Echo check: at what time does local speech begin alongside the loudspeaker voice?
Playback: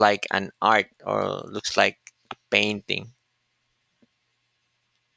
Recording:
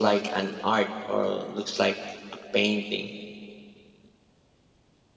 none

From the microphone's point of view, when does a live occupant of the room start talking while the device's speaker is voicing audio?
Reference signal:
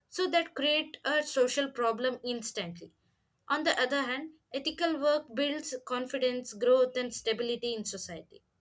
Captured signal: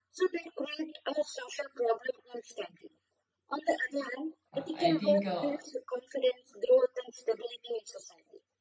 5 s

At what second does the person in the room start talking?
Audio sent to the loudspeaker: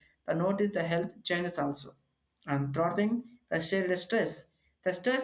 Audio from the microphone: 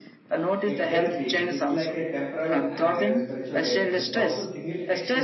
1 s

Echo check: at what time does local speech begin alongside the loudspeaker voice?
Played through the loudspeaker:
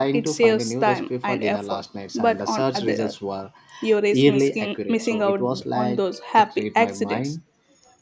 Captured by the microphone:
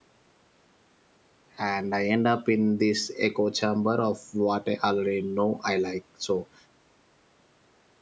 2 s

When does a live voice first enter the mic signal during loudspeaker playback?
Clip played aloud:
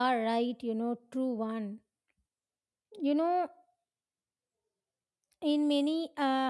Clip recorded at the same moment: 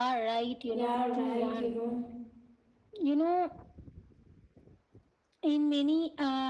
1 s

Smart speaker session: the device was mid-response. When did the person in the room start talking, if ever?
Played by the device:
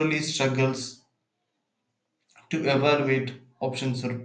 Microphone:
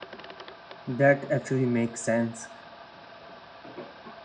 1 s

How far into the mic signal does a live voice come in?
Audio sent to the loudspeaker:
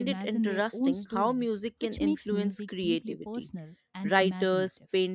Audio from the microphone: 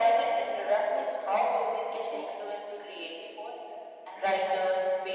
none

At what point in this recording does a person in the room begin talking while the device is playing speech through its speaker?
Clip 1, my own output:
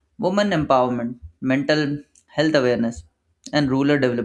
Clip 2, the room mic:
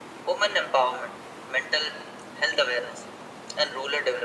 none

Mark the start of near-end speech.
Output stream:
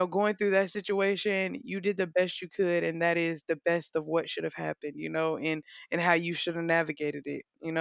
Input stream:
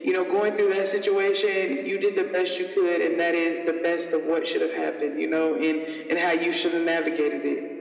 none

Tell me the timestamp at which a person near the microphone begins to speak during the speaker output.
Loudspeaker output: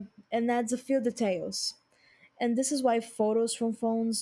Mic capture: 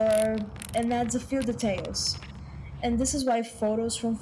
none

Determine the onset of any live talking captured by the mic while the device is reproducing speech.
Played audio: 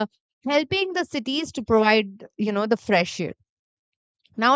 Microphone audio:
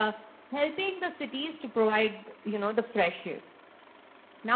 none

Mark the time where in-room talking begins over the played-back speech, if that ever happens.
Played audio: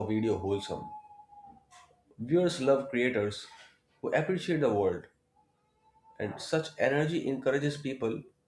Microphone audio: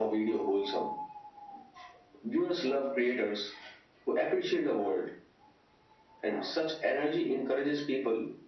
none

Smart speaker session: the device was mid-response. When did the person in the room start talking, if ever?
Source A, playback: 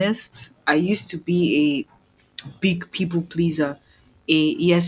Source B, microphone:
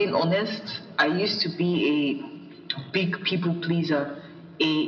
none

